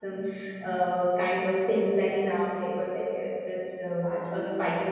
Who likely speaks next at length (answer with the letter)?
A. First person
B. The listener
B